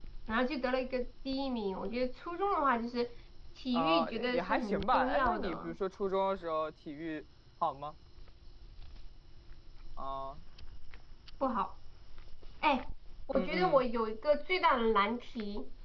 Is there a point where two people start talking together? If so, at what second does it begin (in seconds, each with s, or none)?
3.7 s